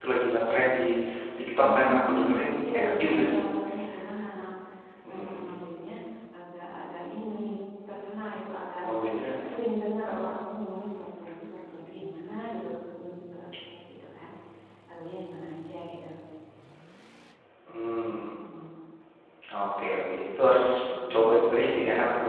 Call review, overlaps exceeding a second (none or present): present